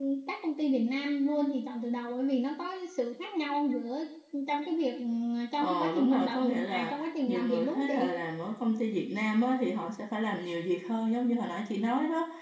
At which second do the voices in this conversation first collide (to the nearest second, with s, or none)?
6 s